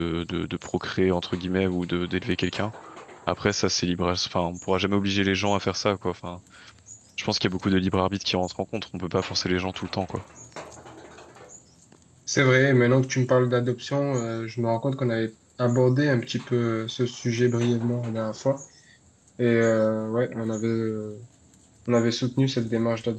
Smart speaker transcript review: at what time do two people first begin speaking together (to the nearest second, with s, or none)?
none